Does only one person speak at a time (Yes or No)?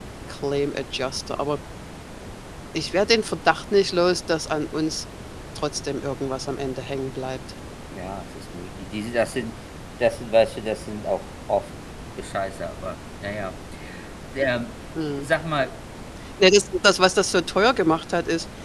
Yes